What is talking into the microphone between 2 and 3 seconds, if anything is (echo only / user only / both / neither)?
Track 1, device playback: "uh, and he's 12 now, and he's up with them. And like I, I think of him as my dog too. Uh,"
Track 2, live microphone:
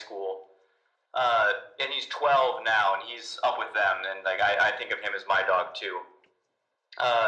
echo only